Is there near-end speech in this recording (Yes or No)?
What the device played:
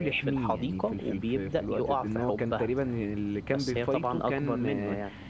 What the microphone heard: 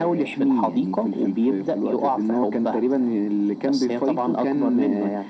No